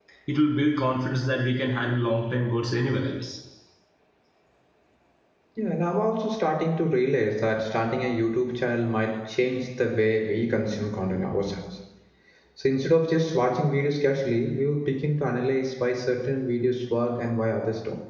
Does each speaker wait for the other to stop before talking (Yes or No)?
Yes